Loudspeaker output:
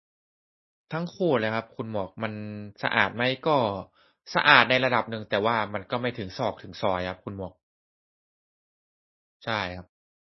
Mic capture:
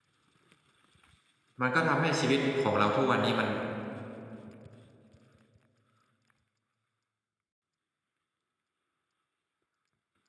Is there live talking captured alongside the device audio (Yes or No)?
Yes